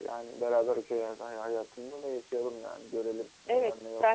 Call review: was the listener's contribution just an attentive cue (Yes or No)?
No